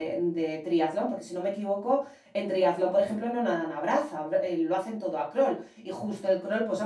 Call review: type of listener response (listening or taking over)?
listening